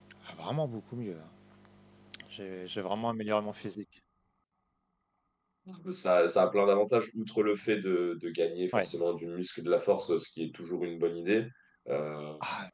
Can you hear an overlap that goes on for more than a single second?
No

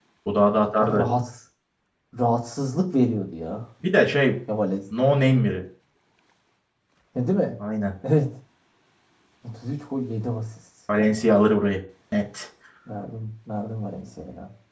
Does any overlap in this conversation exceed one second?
No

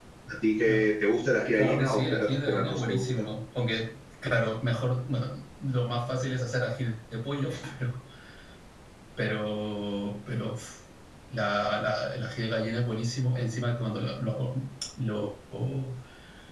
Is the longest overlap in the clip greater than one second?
Yes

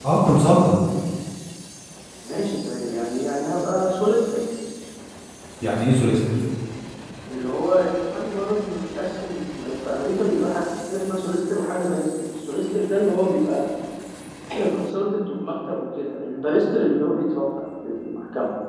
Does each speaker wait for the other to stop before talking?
Yes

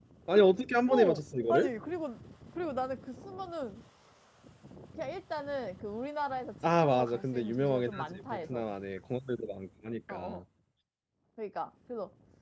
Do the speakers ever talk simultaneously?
Yes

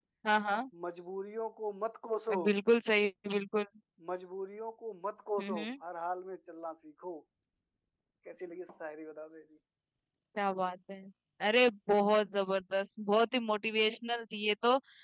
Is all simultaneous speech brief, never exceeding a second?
Yes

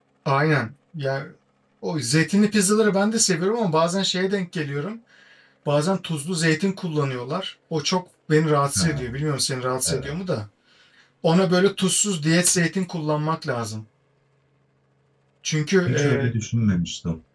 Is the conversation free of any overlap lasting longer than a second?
Yes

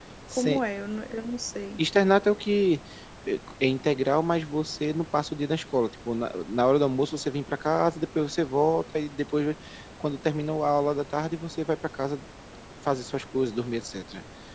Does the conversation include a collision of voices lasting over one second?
No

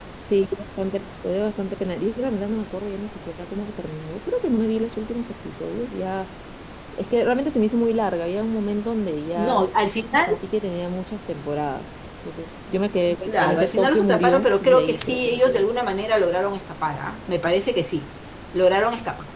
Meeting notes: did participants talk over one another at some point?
Yes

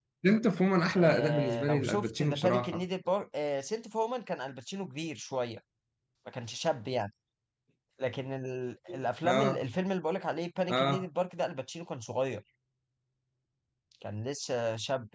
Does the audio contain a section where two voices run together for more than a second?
Yes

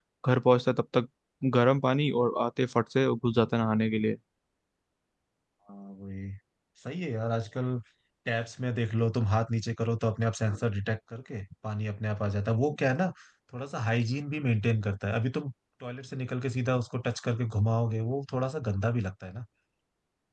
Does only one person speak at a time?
Yes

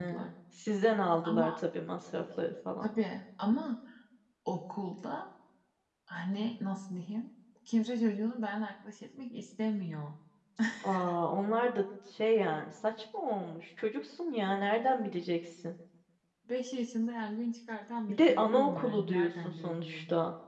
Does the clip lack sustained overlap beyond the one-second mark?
No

